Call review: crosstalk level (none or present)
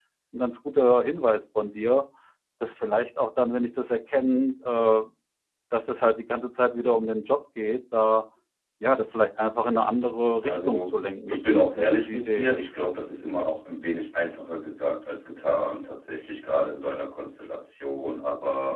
present